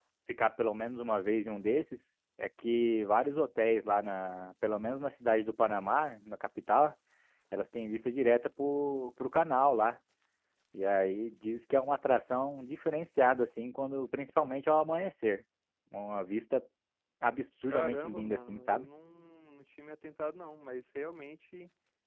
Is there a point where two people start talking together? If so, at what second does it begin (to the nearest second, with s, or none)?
18 s